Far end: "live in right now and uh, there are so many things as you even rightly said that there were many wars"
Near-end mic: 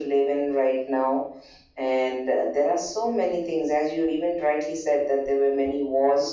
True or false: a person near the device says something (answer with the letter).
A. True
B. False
B